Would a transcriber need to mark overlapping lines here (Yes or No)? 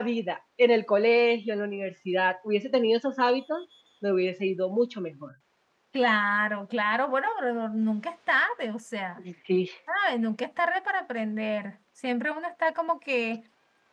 No